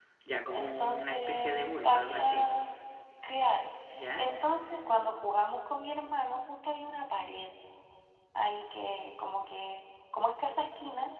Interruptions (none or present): present